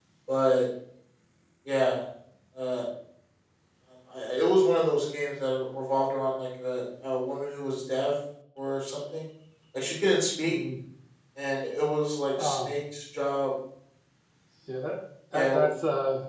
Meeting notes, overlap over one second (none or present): none